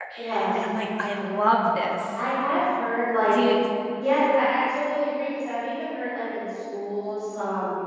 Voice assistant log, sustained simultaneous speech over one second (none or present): none